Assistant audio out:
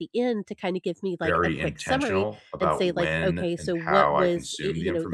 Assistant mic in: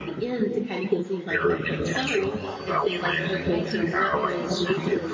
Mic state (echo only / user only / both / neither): both